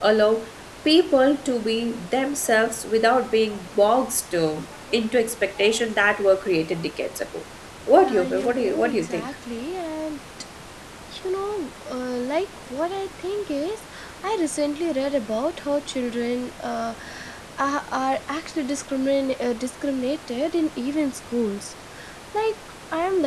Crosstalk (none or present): present